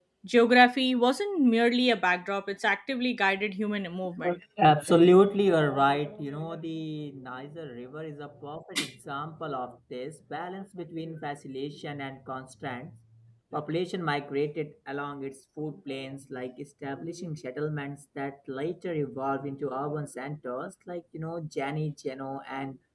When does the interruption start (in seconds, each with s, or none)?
none